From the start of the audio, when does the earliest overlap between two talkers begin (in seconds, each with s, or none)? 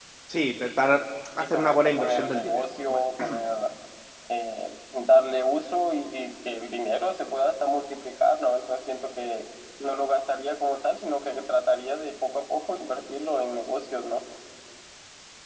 1.4 s